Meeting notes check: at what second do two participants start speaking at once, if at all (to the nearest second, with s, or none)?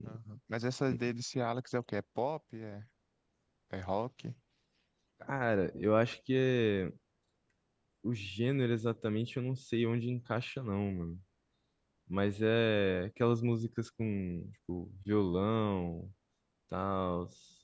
none